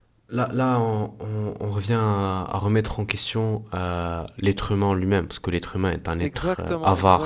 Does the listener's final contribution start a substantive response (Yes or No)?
Yes